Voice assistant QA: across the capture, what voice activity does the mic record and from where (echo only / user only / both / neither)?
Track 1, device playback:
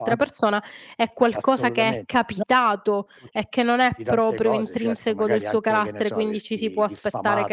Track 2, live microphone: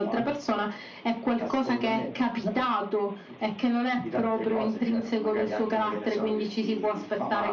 echo only